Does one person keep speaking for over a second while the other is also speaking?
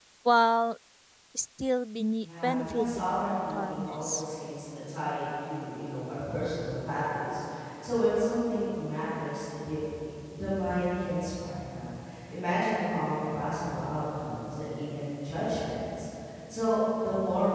Yes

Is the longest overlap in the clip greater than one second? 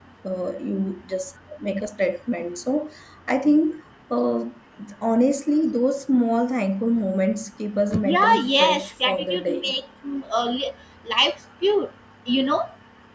Yes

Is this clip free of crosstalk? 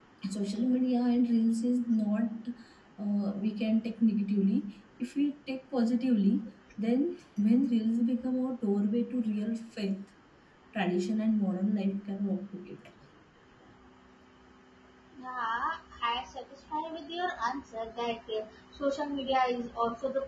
Yes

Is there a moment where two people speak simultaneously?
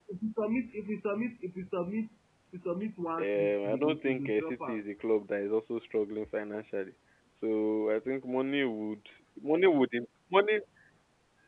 Yes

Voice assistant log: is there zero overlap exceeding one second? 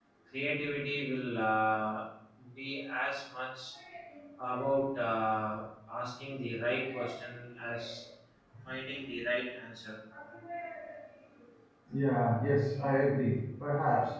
Yes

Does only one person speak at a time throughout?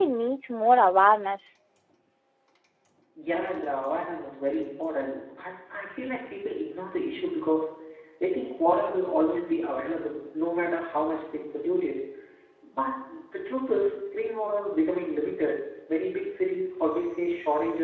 Yes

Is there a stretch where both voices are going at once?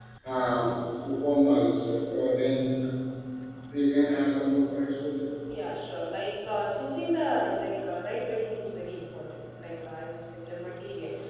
No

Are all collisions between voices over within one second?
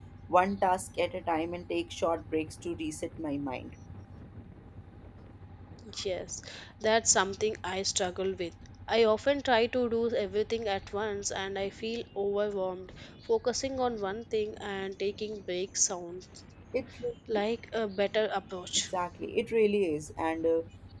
Yes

